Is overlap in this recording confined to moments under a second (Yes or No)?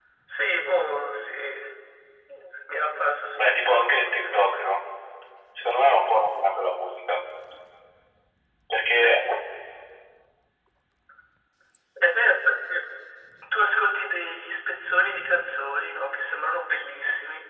No